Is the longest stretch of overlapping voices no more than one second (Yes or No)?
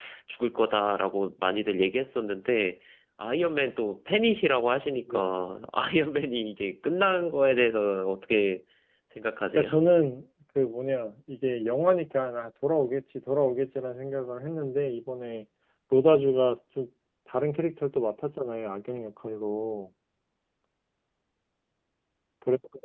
Yes